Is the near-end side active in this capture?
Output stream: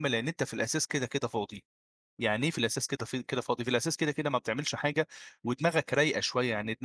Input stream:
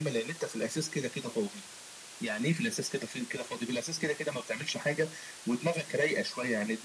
No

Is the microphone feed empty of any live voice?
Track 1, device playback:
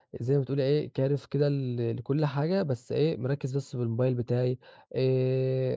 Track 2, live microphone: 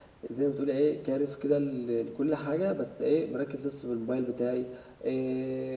Yes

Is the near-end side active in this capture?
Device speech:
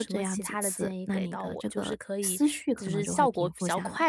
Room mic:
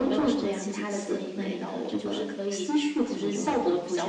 No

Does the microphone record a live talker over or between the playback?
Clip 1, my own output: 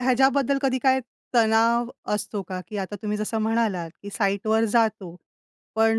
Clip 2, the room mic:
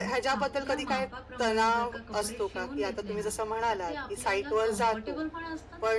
Yes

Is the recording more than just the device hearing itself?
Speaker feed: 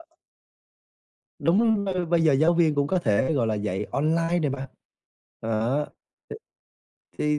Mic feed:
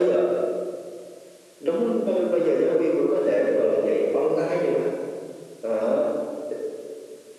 No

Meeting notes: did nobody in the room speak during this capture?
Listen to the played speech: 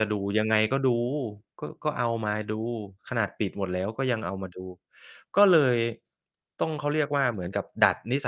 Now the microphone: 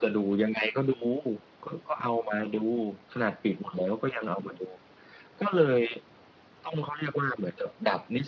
Yes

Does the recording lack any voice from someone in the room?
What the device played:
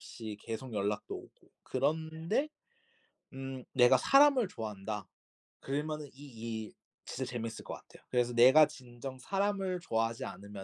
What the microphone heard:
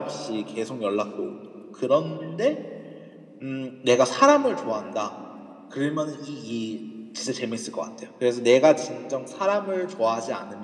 Yes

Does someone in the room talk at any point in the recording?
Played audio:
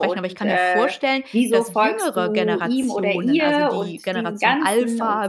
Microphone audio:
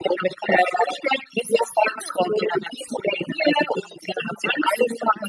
No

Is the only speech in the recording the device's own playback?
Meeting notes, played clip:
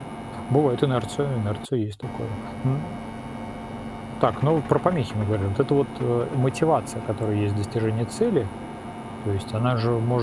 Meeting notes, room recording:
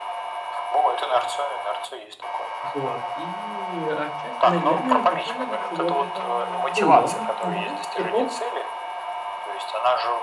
No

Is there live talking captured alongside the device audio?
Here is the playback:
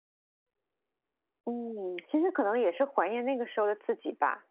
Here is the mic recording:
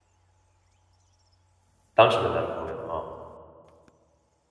Yes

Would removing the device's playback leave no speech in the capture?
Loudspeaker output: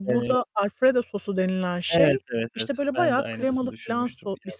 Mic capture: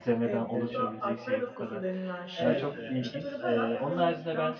No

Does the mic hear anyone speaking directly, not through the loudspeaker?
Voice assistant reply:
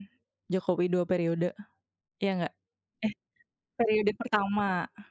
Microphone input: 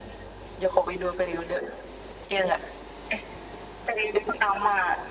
No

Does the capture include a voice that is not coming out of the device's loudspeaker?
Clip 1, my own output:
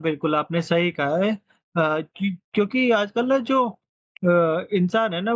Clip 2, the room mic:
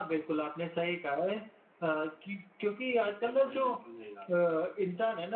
Yes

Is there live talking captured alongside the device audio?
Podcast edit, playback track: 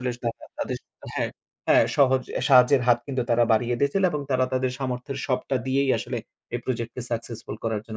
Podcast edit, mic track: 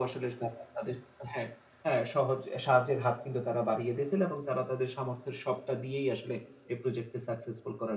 No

